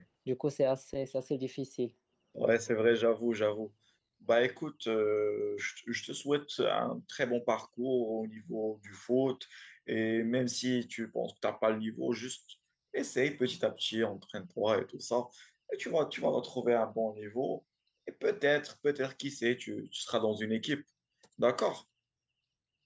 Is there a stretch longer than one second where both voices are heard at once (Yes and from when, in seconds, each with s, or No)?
No